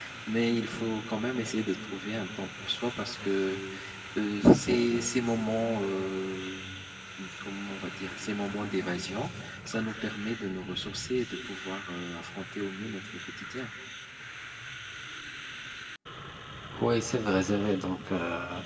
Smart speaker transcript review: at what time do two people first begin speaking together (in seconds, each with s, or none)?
none